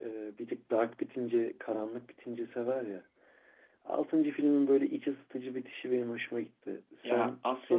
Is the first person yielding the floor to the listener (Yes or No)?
Yes